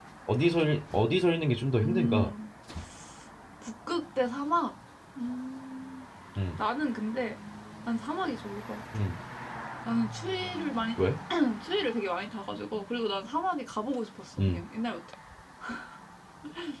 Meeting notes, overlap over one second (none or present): none